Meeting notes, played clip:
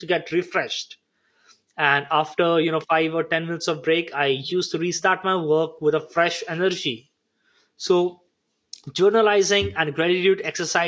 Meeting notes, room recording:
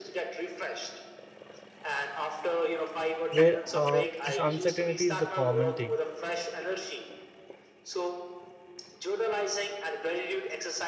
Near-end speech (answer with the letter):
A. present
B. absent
A